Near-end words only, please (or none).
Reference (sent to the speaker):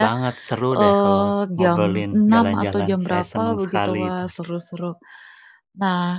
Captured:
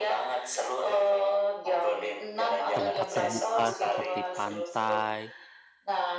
tempat terbuka seperti pantai,